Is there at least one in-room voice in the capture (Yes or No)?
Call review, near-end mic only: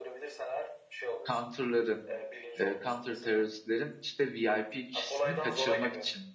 Yes